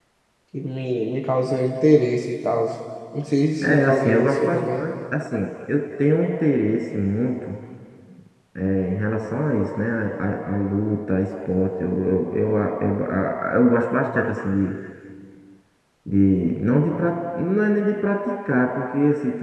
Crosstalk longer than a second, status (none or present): present